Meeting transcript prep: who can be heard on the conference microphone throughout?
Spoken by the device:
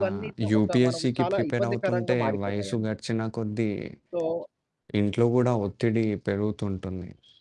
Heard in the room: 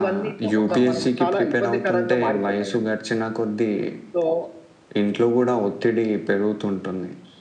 both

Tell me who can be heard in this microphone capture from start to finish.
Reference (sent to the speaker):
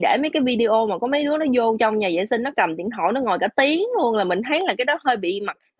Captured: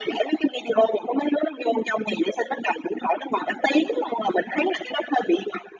echo only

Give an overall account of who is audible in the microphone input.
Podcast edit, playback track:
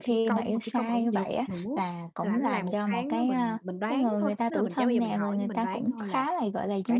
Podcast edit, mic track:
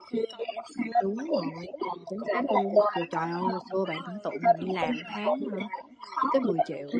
both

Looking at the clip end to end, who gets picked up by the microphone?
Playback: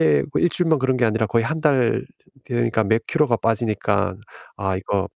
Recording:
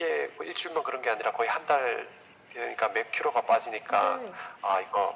both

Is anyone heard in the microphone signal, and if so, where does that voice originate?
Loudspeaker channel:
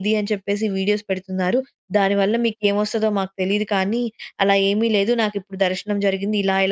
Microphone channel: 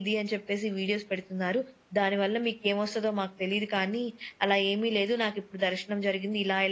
echo only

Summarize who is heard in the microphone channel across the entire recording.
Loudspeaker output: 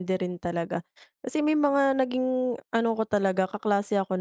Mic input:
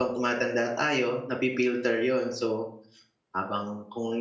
user only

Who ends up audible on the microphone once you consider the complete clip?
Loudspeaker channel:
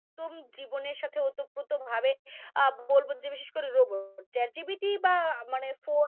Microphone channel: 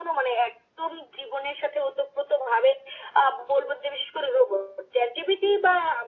echo only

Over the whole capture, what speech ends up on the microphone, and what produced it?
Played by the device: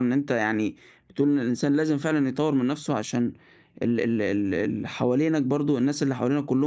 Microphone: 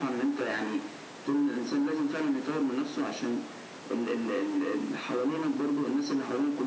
echo only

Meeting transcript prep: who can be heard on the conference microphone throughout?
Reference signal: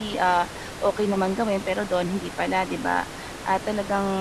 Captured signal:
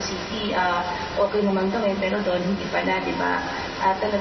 echo only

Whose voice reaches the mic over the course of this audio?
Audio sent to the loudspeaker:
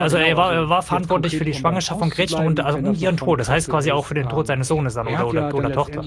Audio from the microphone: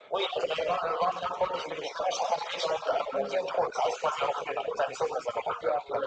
echo only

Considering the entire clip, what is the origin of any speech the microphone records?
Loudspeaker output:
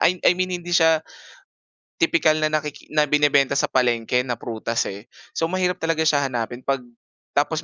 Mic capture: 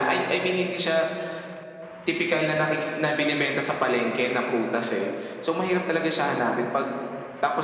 echo only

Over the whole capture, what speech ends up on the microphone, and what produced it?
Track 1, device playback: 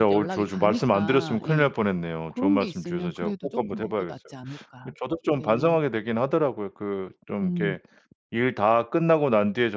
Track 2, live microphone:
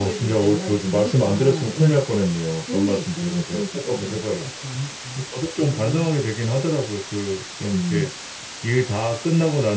echo only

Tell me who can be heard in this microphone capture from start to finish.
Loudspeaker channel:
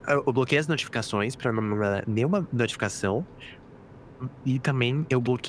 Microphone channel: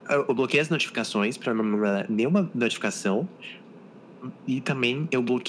echo only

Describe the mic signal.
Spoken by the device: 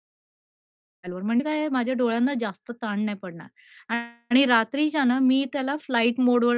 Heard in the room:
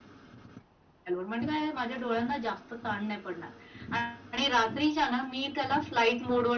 echo only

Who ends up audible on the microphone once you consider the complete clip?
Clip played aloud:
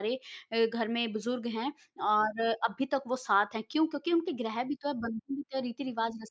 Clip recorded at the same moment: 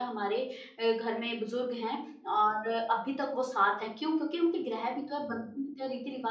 echo only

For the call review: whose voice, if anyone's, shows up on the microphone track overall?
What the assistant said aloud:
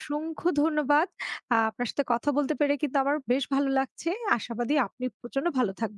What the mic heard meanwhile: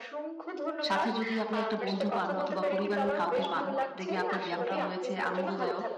both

